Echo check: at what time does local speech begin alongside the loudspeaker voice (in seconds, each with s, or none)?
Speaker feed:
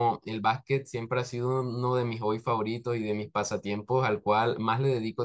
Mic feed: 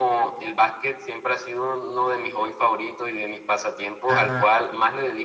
4.1 s